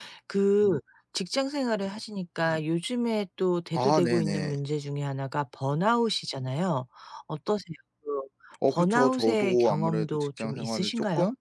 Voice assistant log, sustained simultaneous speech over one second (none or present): present